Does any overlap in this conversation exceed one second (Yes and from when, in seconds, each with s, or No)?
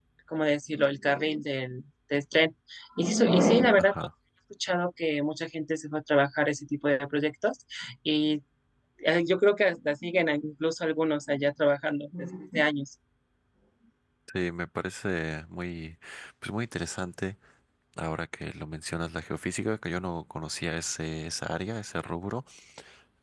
No